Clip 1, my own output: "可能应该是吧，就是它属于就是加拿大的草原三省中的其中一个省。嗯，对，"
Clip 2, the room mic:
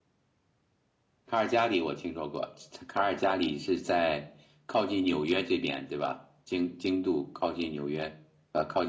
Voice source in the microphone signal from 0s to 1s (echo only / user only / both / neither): neither